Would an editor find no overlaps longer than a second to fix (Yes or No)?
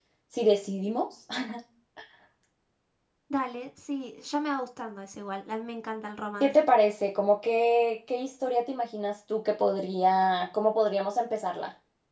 Yes